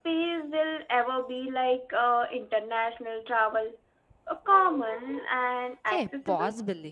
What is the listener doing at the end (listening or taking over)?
taking over